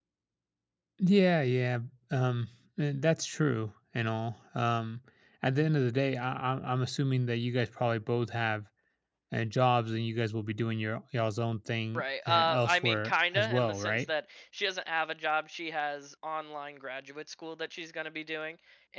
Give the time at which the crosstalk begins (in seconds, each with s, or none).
11.9 s